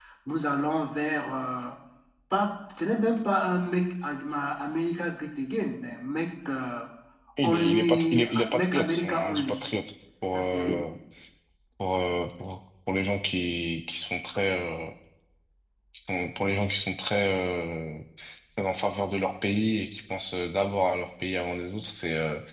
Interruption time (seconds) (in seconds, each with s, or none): 7.4 s